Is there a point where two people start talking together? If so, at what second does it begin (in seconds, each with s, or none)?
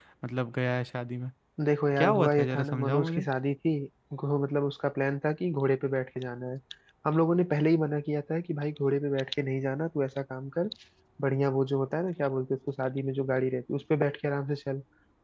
2.0 s